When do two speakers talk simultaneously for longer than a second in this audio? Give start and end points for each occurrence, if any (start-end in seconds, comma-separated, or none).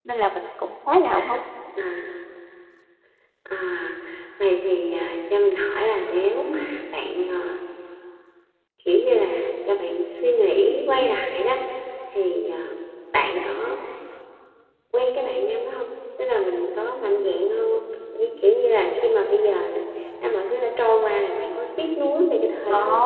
none